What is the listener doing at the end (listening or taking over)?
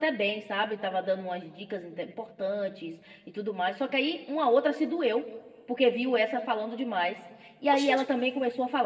listening